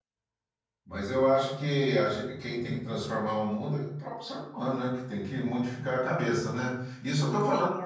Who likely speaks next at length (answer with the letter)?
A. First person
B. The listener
A